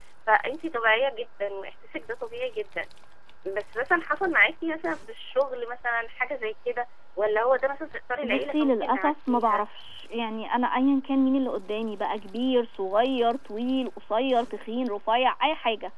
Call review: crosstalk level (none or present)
present